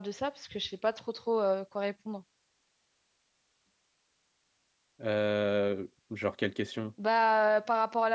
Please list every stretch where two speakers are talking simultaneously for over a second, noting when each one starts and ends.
none

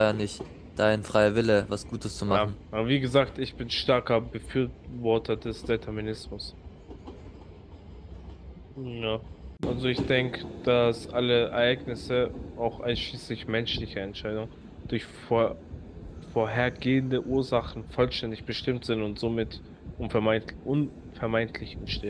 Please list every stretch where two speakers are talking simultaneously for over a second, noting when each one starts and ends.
none

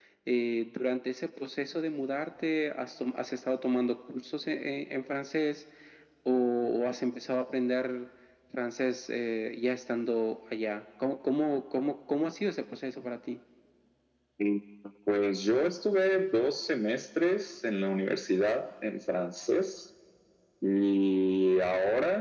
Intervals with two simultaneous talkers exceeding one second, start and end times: none

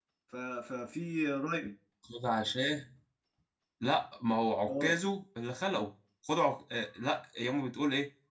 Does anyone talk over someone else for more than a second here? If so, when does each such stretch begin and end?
none

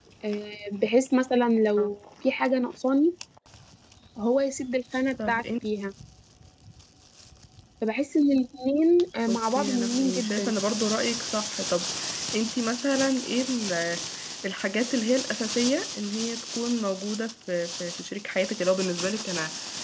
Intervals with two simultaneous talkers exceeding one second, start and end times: 9.3-10.5

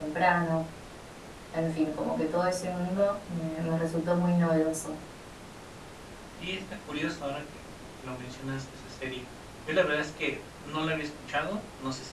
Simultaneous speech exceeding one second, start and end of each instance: none

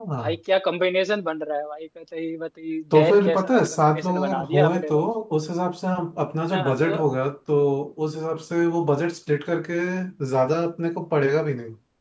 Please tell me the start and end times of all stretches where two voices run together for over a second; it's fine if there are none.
2.9-5.0

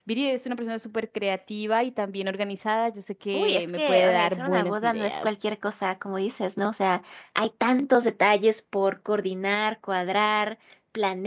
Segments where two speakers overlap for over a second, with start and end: 3.3-5.3

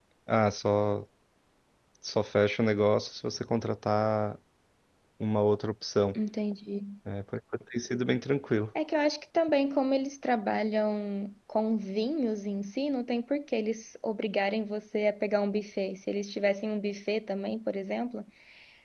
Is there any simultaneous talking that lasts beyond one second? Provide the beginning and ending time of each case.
none

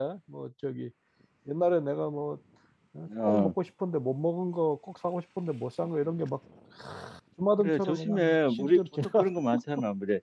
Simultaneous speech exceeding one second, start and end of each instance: 7.6-9.2

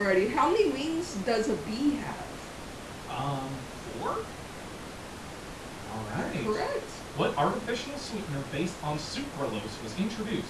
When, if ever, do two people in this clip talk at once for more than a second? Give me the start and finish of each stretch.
none

